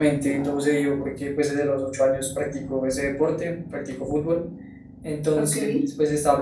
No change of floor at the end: Yes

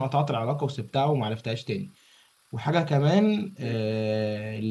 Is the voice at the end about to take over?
No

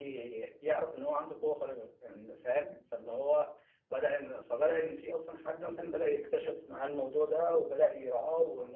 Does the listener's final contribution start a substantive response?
No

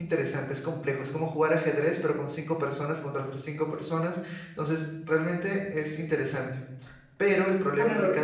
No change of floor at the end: Yes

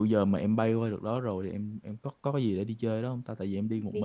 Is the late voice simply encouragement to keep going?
No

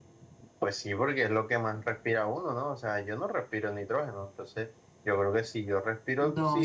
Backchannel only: No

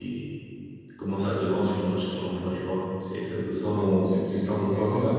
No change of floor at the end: No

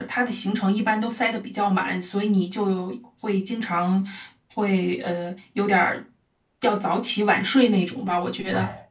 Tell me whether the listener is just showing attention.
No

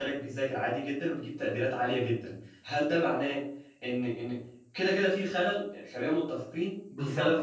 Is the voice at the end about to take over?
Yes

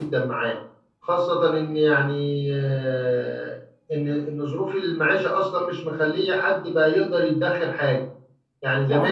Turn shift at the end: No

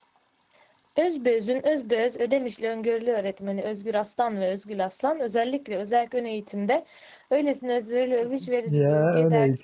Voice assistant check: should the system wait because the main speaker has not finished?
No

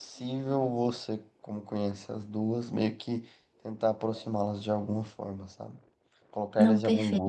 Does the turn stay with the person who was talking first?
Yes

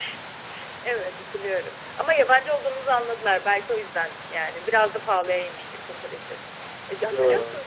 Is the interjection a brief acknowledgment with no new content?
Yes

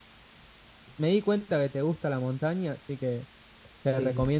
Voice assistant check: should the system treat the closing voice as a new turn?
No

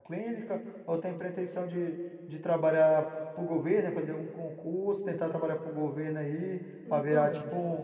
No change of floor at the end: Yes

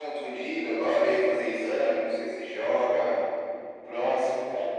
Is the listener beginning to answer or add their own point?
No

